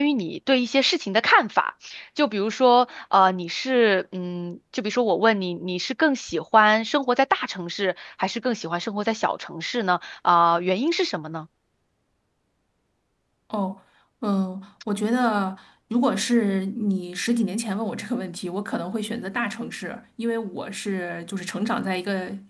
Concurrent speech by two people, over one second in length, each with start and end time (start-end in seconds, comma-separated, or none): none